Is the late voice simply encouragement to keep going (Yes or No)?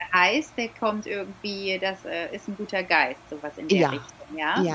No